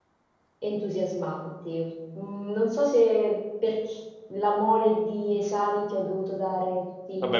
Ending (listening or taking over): taking over